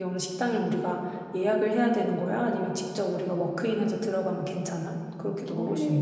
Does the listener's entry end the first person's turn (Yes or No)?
Yes